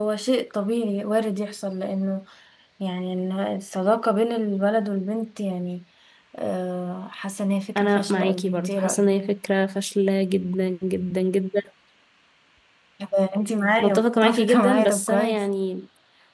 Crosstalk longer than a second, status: present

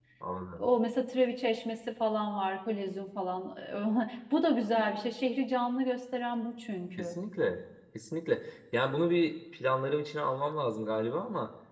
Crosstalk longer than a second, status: none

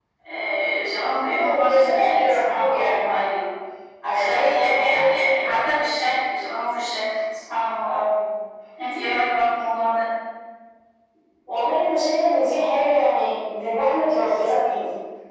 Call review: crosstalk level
present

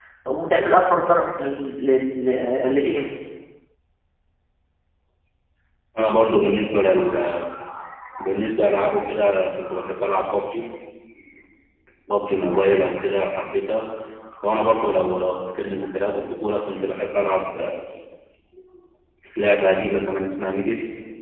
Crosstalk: none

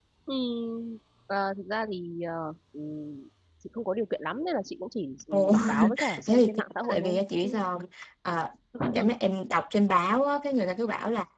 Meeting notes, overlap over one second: present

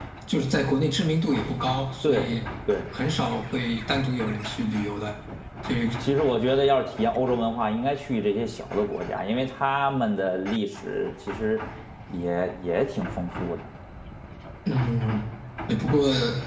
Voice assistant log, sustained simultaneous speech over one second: none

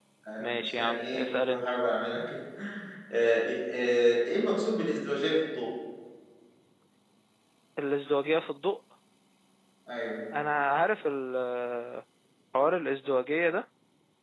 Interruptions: present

